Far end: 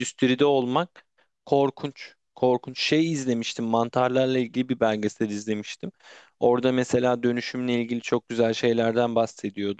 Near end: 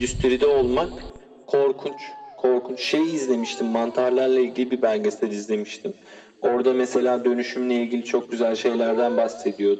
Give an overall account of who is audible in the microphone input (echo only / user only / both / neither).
echo only